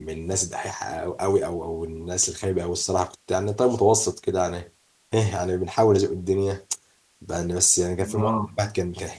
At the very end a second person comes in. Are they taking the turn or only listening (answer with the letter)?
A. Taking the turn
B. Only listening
B